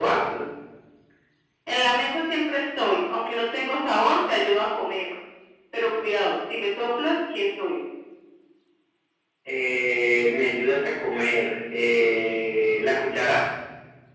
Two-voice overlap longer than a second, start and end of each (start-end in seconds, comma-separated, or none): none